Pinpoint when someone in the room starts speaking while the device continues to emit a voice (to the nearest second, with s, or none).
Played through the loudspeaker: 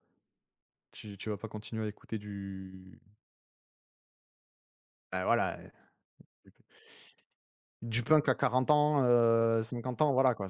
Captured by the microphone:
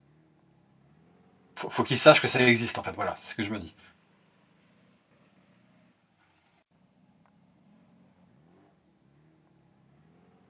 2 s